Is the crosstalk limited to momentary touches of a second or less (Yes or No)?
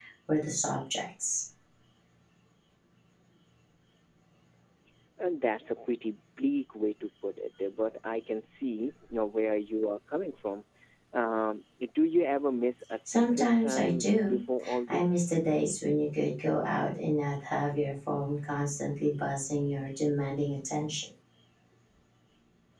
No